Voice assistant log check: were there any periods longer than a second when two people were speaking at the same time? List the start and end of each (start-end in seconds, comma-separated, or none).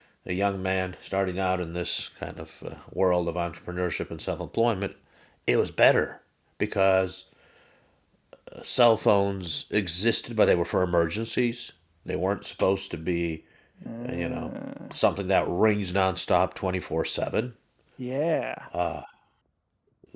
none